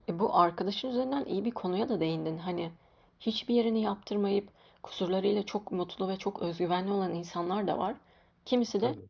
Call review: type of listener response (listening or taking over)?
listening